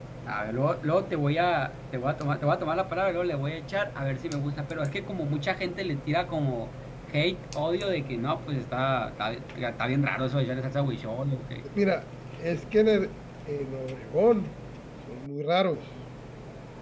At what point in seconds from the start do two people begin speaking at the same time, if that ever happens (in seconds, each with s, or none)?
none